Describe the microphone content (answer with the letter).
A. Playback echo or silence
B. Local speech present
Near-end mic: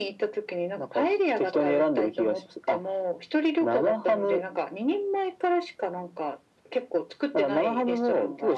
A